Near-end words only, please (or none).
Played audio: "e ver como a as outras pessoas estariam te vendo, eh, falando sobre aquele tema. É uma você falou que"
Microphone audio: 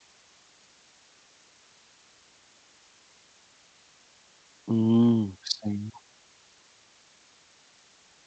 Hum, sim.